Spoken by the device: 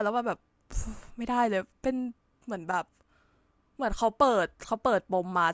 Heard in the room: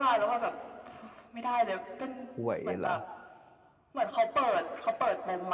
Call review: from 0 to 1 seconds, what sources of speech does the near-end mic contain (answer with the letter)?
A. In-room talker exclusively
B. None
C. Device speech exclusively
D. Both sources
C